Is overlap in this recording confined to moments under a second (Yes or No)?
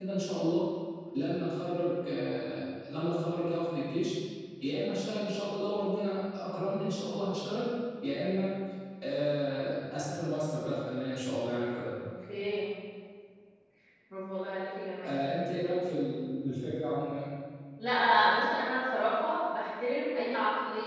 Yes